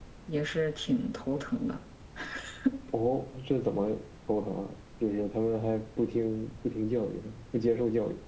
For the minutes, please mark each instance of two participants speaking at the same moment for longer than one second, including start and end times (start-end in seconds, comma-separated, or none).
none